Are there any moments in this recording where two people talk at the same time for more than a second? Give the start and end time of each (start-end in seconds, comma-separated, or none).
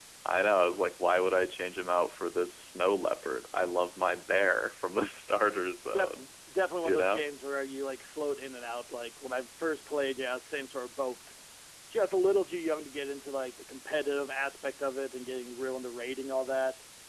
none